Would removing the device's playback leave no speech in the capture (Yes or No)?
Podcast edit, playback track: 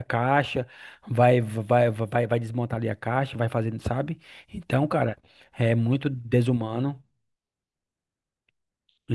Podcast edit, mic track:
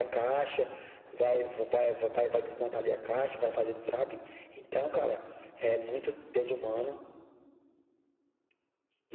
Yes